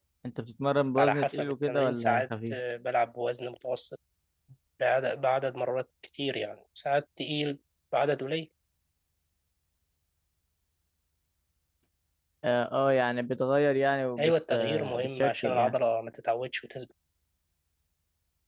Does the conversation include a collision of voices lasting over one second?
Yes, from 1.0 s

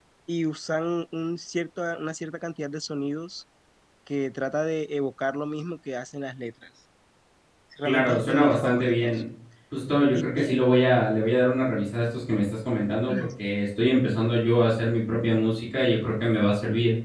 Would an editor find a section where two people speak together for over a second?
Yes, from 7.8 s

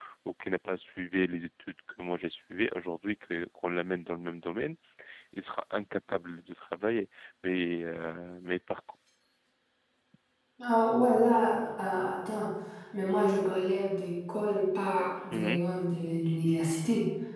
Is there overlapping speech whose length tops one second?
No

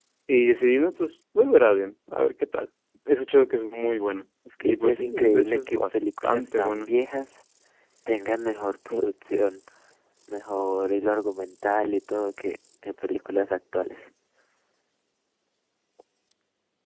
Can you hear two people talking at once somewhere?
Yes, from 4.4 s

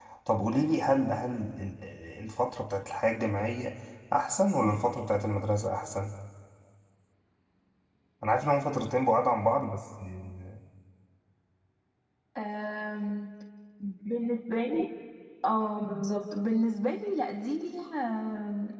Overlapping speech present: No

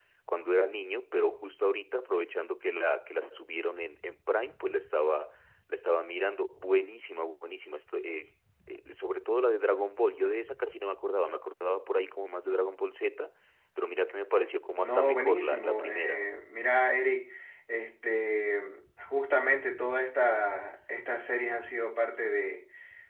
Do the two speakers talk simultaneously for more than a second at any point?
Yes, from 14.8 s

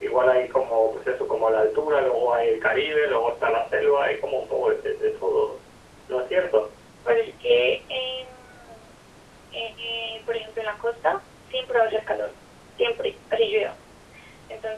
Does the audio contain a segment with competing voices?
No

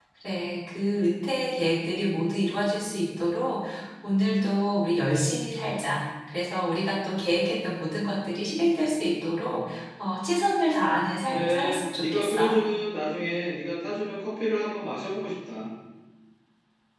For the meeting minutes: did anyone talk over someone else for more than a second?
Yes, from 11.3 s

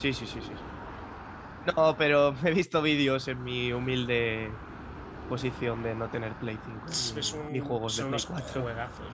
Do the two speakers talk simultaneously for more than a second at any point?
Yes, from 6.9 s

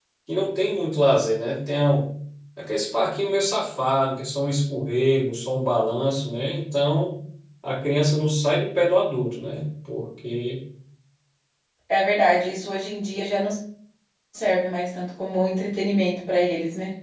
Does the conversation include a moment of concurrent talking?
No

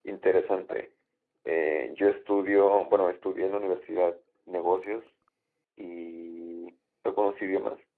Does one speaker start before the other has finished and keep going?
No

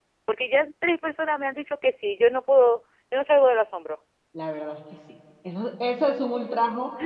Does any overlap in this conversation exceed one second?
No

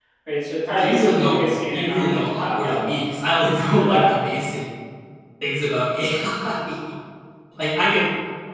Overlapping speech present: Yes, from 0.8 s

